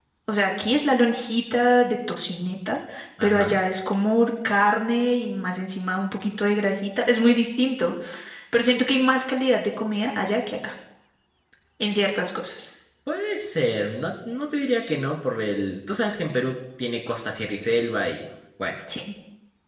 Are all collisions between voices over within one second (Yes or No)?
Yes